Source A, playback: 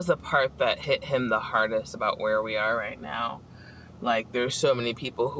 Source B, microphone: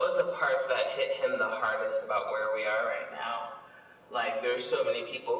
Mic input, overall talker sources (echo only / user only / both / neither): echo only